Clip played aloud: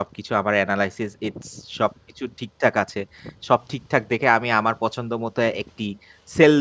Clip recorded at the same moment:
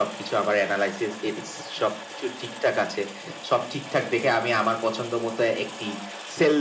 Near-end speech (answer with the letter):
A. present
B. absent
B